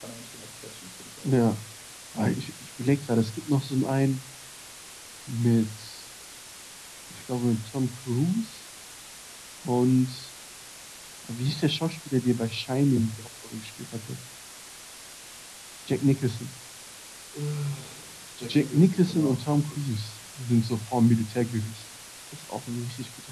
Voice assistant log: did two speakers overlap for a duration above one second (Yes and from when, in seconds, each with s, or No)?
Yes, from 18.4 s